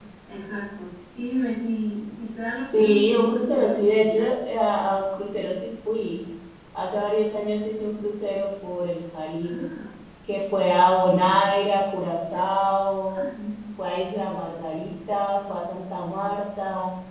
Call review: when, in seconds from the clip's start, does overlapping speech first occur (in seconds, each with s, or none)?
2.7 s